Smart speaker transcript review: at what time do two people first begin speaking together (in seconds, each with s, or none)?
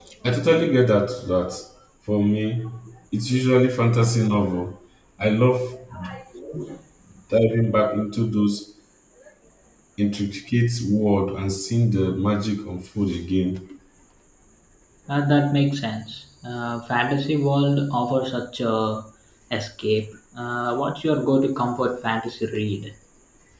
none